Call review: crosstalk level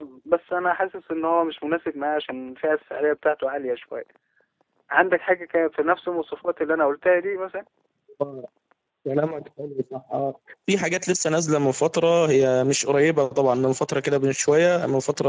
none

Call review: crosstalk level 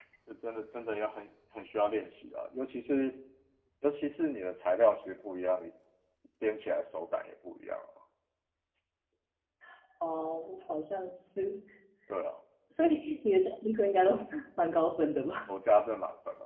none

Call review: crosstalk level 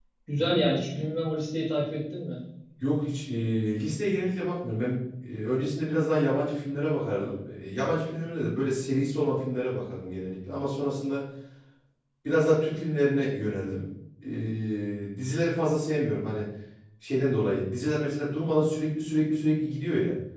none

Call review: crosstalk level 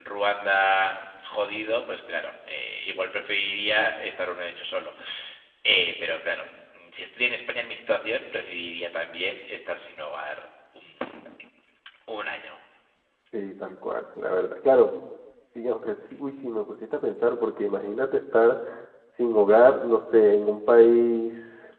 none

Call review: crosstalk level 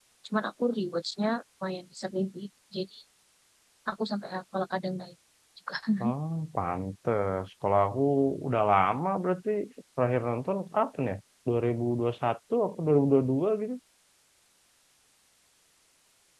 none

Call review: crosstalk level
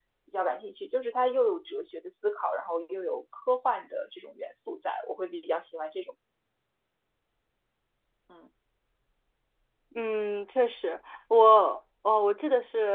none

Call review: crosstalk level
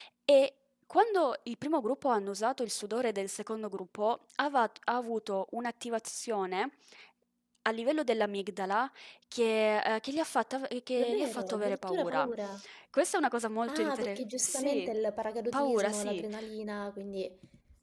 present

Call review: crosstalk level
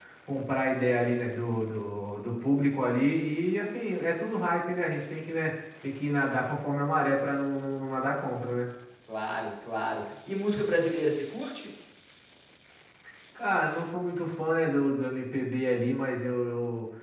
none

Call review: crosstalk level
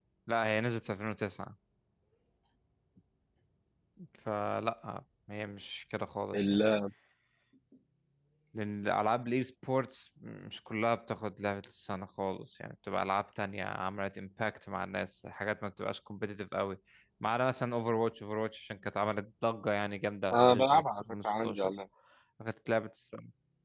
present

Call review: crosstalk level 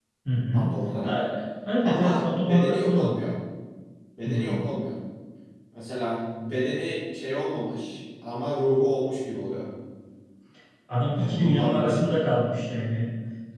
present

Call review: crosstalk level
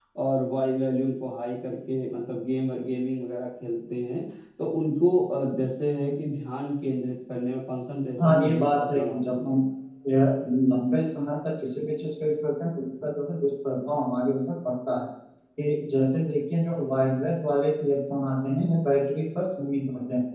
present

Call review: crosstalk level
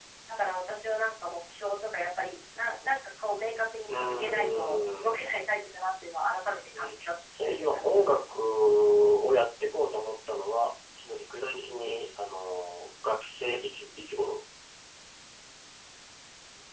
present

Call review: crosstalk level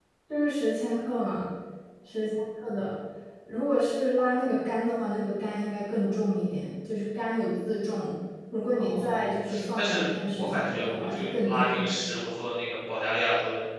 present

